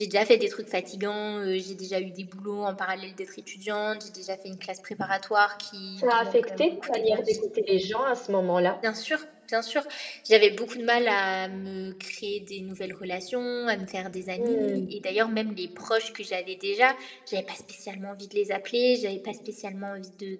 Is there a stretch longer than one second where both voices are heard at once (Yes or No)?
Yes